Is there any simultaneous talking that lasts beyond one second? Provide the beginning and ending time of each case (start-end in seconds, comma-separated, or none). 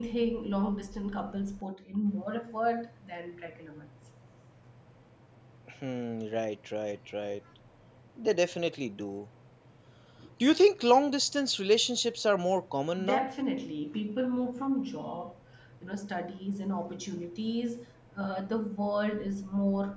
none